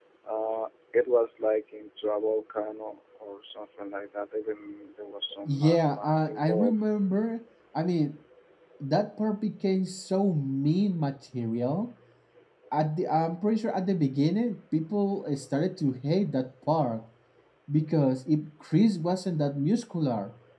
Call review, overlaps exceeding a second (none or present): present